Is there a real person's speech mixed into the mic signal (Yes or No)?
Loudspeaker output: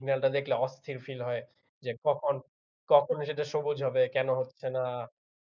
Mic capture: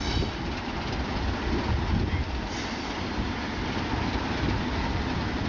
No